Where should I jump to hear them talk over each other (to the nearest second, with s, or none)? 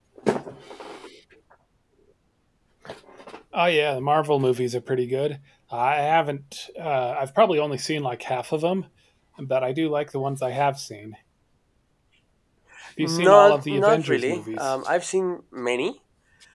13 s